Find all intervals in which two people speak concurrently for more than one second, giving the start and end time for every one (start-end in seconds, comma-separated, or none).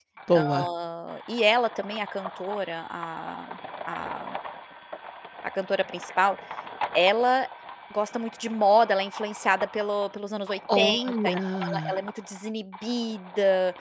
10.8-12.0